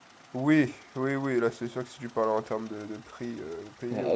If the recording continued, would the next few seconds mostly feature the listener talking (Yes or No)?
Yes